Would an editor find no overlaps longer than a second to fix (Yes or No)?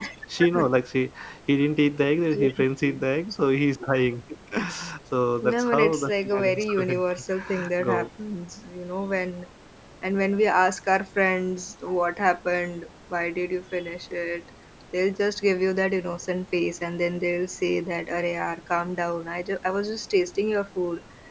No